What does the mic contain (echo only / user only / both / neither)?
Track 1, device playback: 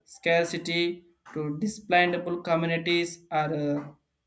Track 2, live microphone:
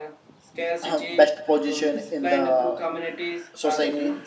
both